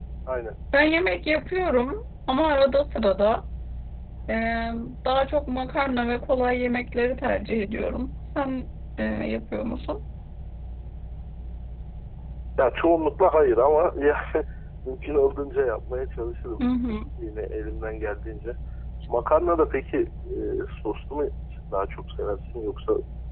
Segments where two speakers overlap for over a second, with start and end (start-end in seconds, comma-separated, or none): none